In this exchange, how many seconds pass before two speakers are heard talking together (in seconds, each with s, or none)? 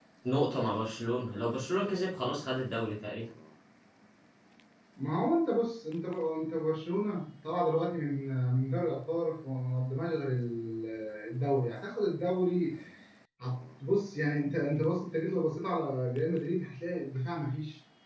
none